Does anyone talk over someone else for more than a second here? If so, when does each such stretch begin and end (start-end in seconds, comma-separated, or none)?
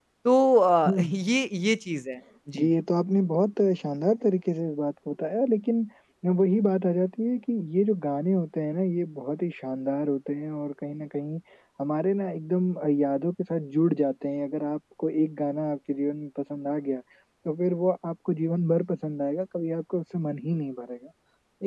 none